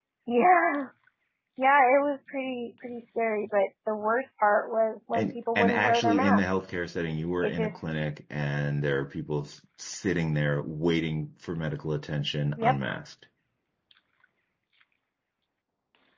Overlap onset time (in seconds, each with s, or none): 5.1 s